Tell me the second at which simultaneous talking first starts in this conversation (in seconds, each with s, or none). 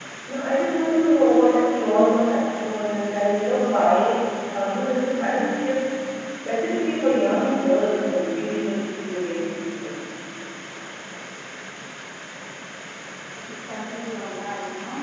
none